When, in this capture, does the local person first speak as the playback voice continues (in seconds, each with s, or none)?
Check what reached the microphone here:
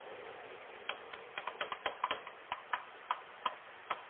none